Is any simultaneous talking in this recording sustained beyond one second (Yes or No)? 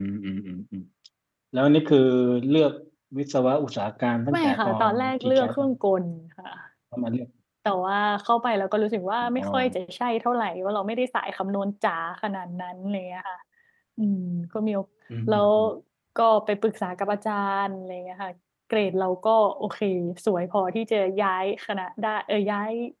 Yes